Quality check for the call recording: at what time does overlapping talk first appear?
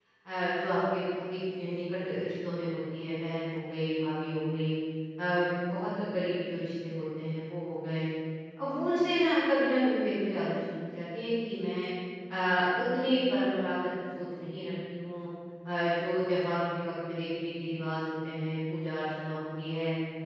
none

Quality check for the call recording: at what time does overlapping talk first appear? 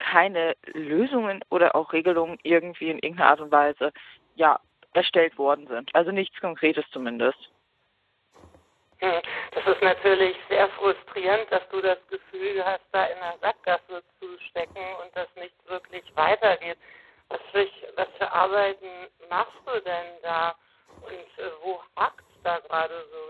none

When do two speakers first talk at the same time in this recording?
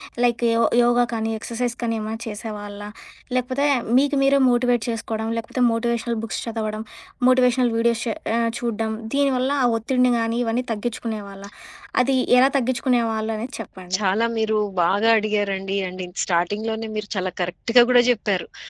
none

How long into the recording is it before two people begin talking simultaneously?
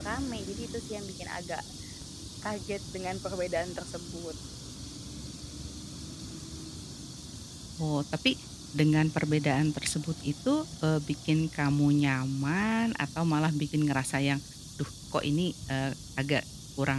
none

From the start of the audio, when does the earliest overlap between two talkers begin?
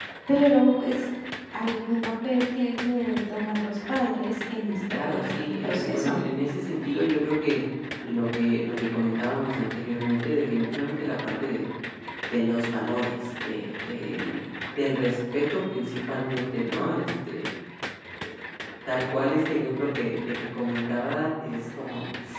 4.9 s

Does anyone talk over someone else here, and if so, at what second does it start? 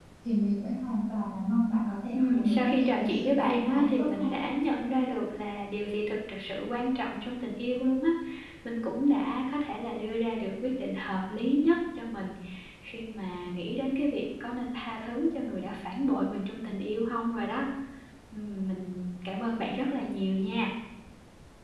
2.1 s

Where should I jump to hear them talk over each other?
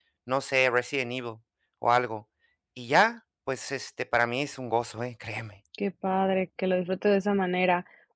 none

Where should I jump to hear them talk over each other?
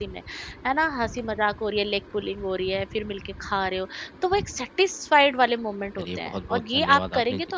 6.0 s

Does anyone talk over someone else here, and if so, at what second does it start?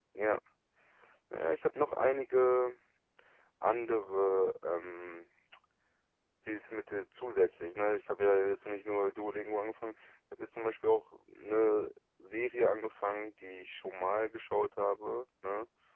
none

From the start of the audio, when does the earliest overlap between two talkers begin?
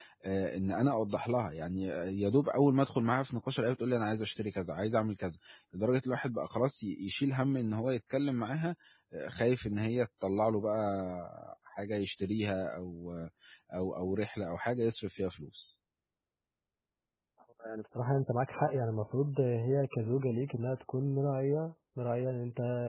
none

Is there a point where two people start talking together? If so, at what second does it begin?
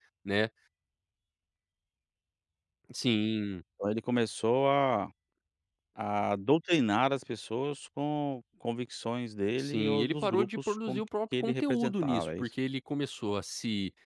9.6 s

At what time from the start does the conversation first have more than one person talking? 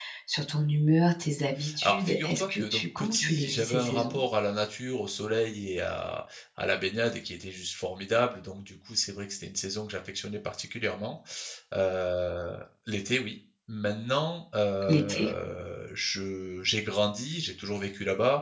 1.8 s

